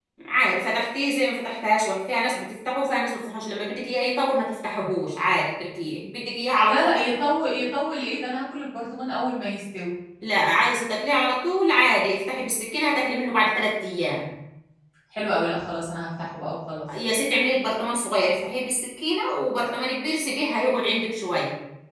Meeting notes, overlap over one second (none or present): none